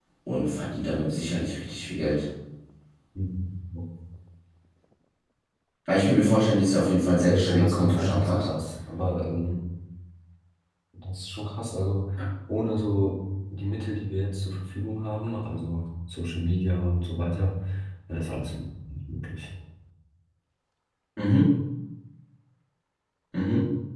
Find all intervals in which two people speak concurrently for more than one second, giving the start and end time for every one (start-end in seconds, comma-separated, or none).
7.2-8.5